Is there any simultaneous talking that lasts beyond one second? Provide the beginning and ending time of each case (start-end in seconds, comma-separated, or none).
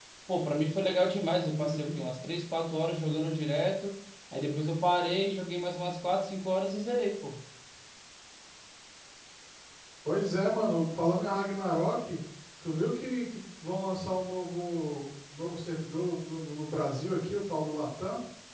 none